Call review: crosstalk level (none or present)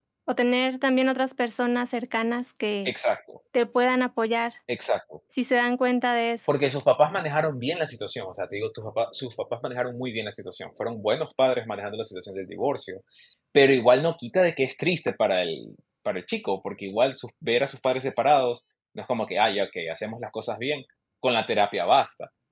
none